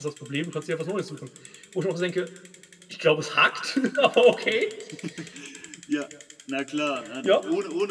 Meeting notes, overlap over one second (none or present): none